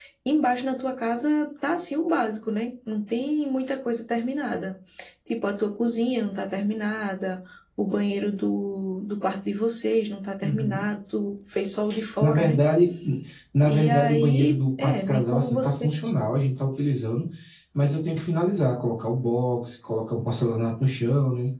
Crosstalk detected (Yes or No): Yes